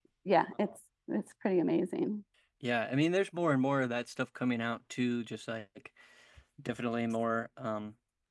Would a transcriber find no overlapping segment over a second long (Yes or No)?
Yes